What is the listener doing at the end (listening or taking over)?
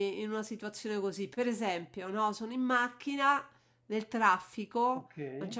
listening